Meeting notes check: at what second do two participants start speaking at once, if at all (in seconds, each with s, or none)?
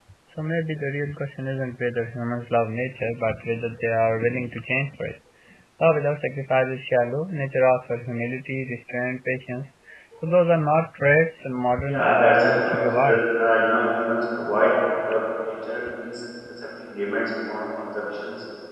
11.9 s